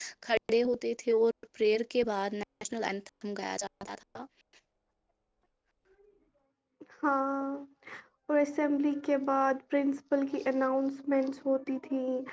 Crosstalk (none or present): none